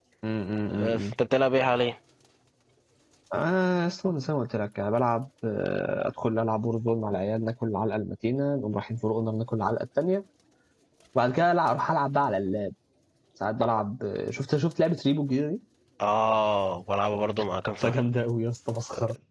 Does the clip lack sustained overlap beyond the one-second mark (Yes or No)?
Yes